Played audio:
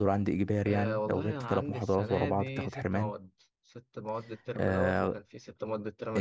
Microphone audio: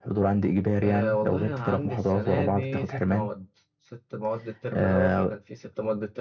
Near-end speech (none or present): none